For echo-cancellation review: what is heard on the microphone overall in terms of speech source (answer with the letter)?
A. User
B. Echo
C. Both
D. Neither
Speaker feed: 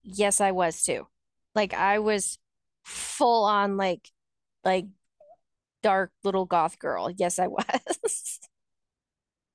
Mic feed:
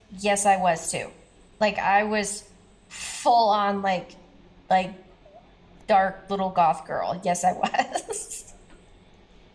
B